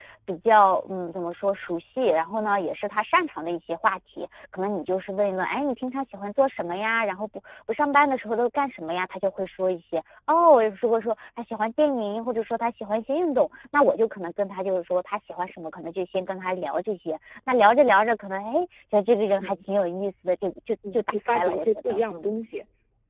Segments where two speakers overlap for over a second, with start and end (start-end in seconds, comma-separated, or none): 20.9-22.3